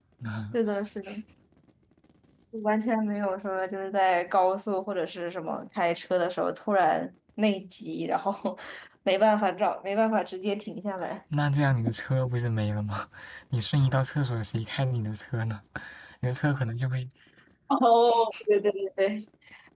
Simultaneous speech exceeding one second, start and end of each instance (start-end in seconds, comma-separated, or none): none